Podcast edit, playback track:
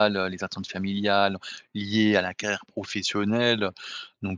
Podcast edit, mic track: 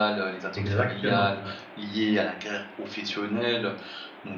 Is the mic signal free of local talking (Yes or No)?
No